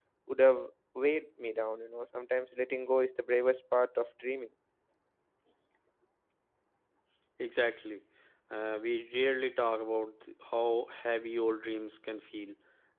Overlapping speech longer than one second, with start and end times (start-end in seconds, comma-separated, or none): none